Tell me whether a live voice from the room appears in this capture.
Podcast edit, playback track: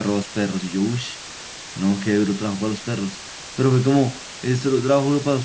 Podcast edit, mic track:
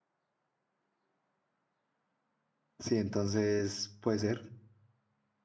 Yes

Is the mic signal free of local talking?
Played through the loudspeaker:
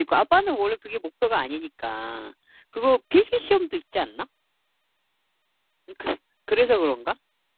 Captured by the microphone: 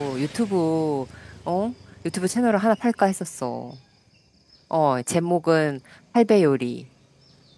No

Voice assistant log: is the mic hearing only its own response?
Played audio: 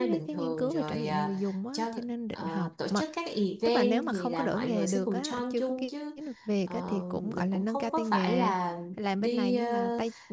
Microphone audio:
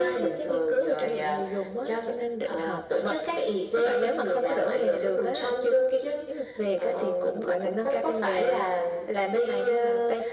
Yes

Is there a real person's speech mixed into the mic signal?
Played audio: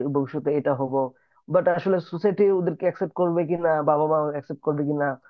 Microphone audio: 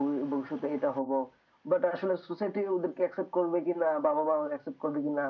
No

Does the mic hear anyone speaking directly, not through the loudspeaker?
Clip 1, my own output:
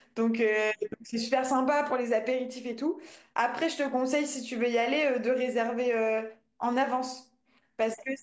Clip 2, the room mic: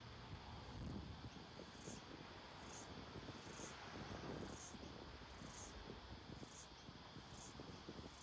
No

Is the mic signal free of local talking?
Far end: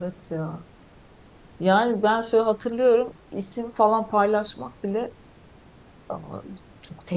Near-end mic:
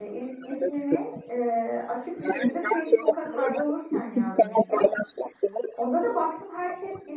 No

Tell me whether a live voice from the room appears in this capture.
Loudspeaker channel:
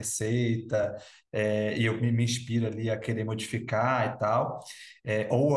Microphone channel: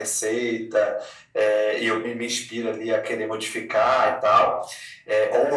No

